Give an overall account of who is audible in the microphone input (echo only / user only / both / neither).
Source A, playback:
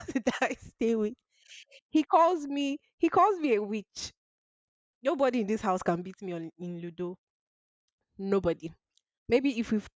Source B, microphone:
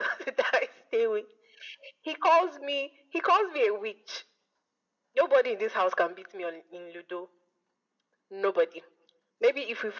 echo only